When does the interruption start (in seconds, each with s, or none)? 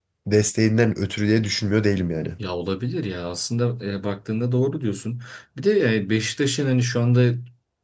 none